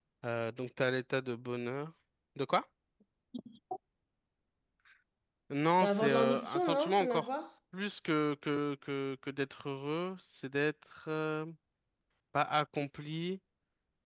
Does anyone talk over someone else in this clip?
Yes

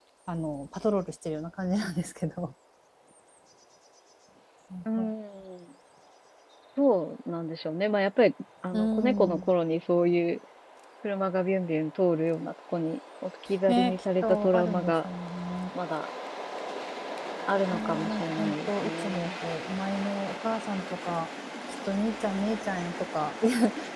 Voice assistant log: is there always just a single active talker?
No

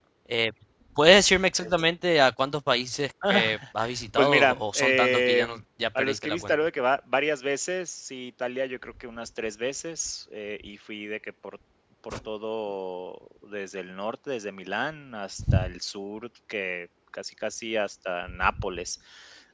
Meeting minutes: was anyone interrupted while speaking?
Yes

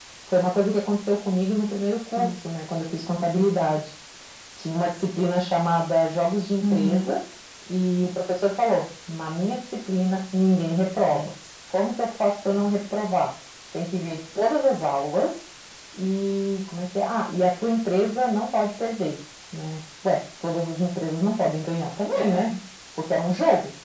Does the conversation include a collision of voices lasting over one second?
No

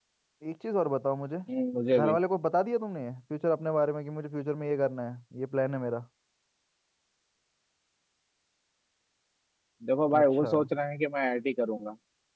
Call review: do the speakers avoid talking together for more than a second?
Yes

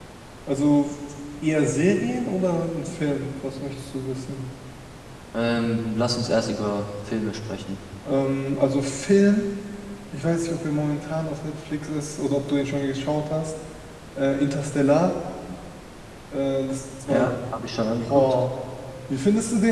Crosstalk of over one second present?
No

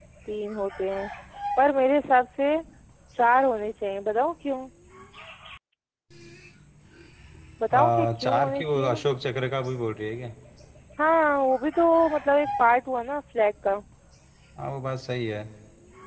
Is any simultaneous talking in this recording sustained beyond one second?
Yes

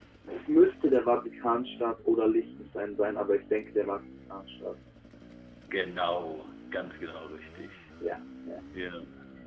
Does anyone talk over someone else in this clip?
No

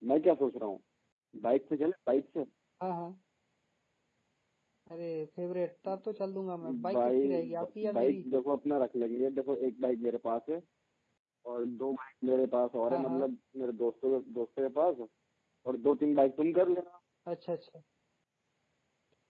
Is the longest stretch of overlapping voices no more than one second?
No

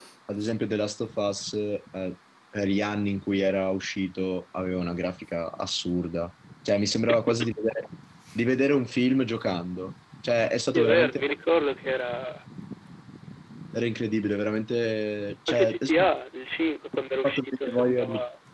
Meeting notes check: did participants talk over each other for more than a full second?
Yes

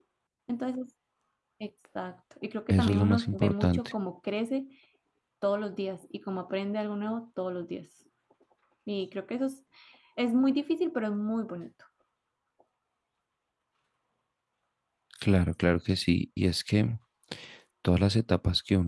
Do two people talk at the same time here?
Yes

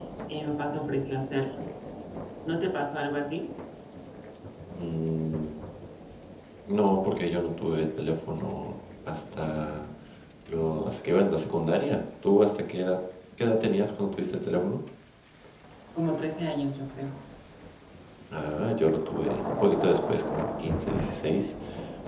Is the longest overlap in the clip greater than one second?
No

